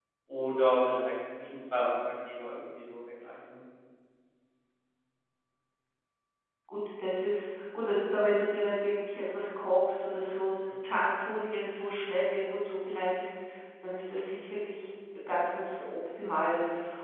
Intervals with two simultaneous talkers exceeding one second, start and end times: none

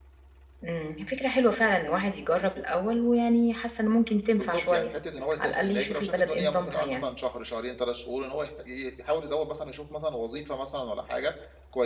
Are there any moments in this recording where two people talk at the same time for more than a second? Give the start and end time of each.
5.4-7.0

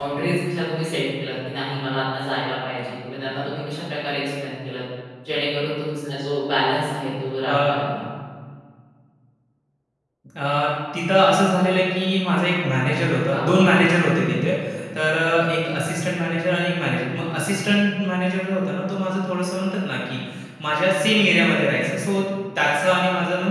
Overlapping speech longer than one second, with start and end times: none

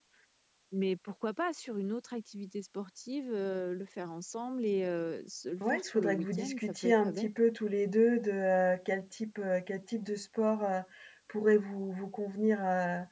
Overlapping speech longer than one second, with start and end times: 5.6-7.3

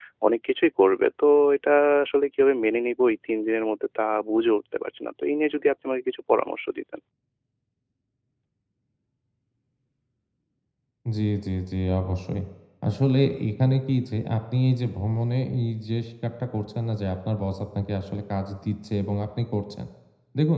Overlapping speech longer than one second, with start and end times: none

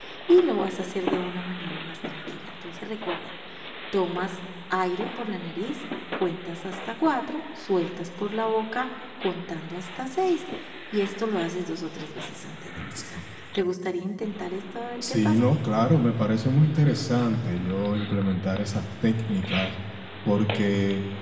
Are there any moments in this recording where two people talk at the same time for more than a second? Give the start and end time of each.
none

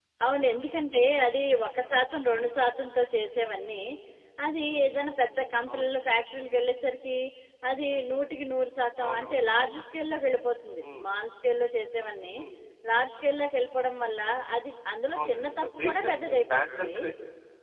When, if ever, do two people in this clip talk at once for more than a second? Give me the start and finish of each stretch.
15.1-17.0

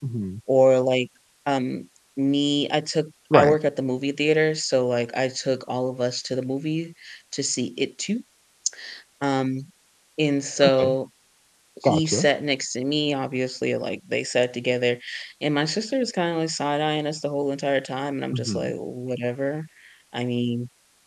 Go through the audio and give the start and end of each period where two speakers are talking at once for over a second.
none

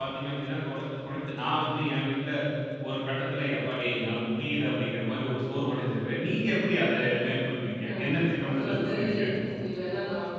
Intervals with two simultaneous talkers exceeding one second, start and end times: 7.9-9.2

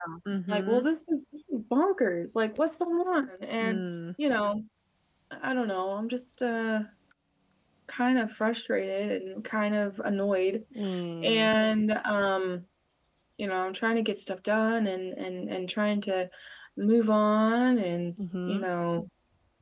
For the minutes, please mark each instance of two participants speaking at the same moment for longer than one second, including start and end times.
none

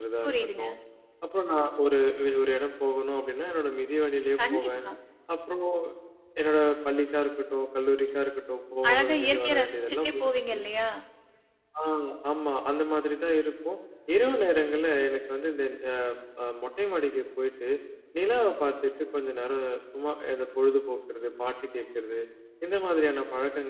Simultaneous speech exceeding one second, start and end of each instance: 8.9-10.6

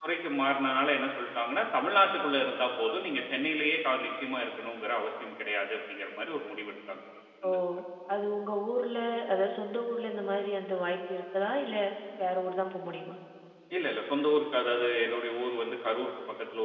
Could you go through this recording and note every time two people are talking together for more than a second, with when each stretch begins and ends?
none

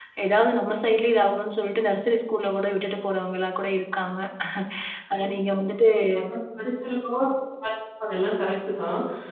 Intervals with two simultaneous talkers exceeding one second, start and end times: none

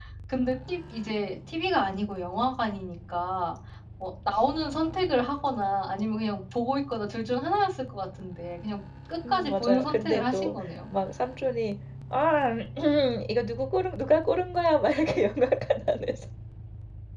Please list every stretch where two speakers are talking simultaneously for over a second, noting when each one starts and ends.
9.3-10.5

